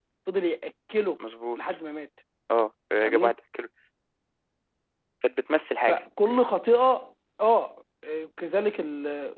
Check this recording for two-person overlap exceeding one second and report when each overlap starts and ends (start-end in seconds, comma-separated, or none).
none